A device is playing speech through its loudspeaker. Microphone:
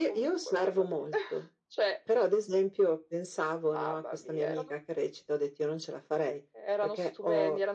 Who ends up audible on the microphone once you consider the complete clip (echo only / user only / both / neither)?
echo only